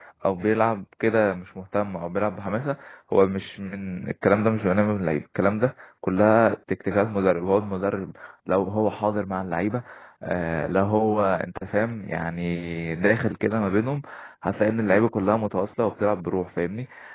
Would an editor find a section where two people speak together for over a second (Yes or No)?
No